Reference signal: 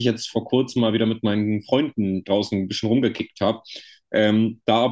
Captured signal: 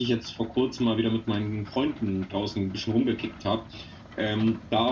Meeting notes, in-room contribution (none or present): none